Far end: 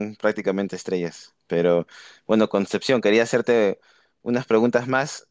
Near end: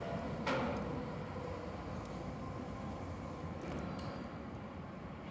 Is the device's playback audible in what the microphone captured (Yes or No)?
No